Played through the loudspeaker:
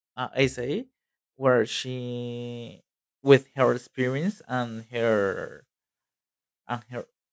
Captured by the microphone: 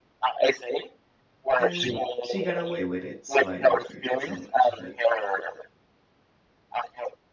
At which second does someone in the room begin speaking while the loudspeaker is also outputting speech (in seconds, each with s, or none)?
1.6 s